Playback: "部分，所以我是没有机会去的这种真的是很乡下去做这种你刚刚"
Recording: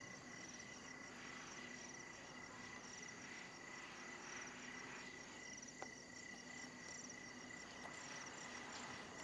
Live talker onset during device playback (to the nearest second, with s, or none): none